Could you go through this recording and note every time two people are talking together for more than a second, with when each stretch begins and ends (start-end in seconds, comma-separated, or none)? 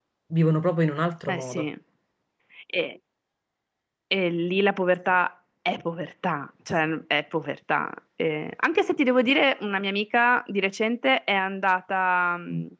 none